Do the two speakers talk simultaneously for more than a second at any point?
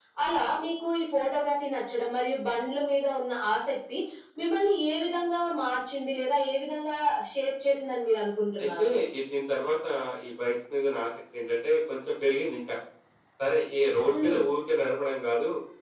No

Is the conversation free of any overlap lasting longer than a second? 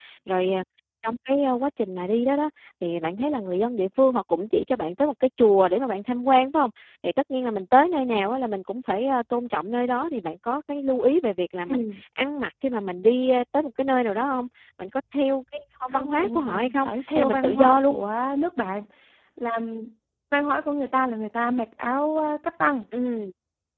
No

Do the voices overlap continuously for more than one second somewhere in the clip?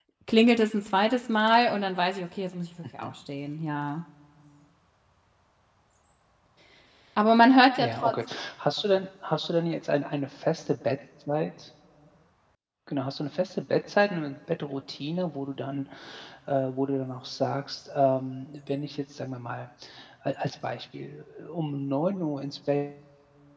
No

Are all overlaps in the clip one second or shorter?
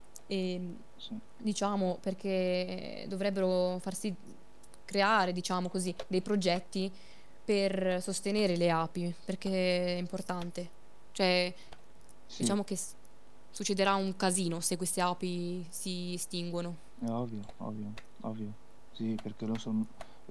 Yes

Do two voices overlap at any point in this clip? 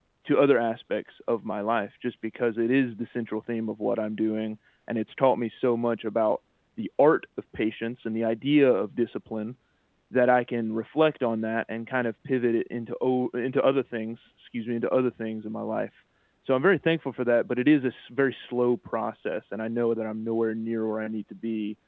No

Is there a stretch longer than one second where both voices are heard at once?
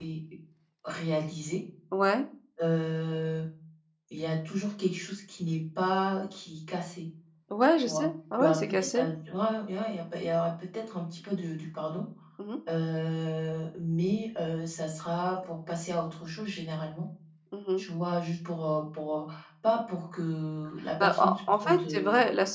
Yes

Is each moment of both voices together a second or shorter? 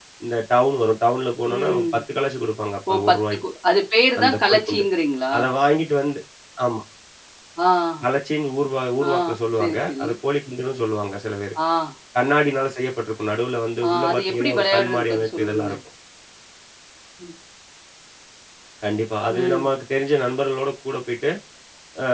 No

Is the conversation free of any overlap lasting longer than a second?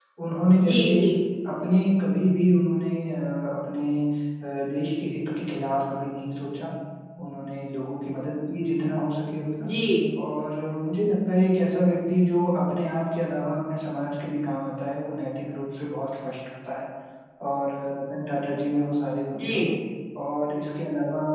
Yes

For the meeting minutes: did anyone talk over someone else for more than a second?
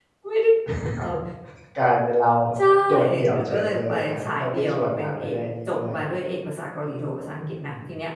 Yes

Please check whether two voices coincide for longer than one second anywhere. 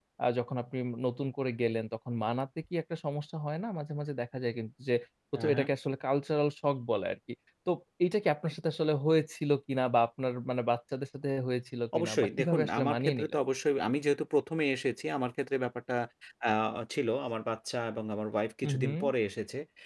Yes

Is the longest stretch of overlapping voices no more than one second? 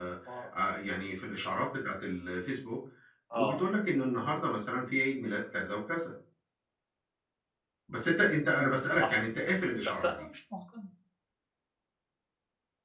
Yes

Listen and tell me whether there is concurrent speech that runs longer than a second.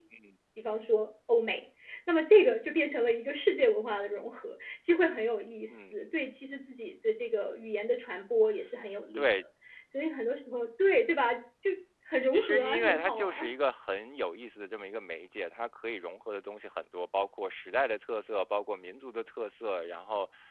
Yes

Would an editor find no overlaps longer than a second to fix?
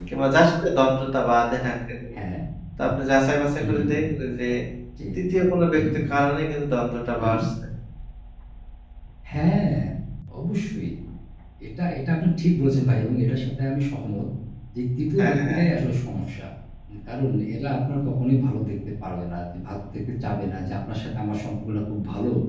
Yes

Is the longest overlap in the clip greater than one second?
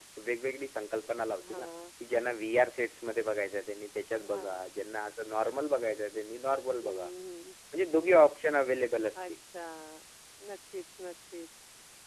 No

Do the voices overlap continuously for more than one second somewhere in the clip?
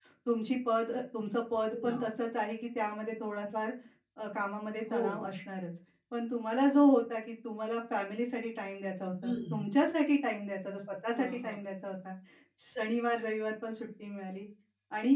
No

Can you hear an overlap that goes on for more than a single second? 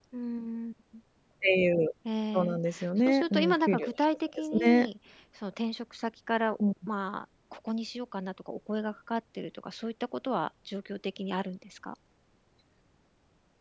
Yes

